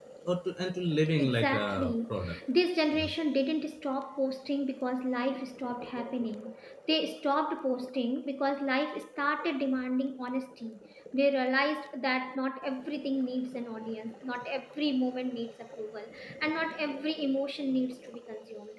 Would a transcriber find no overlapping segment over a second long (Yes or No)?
No